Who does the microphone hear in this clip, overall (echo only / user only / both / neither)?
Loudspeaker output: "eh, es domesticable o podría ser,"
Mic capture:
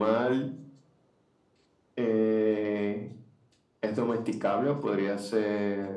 echo only